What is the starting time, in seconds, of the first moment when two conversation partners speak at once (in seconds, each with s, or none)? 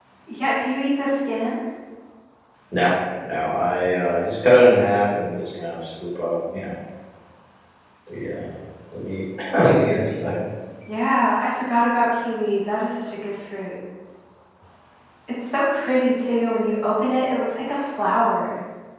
none